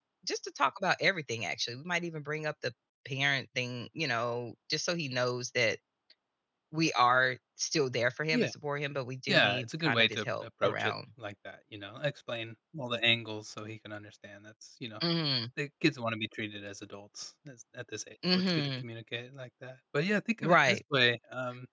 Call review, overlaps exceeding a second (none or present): present